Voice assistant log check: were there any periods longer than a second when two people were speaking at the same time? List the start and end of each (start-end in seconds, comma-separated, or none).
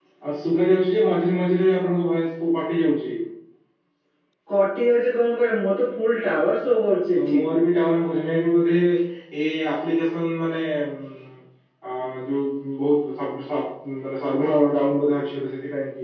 none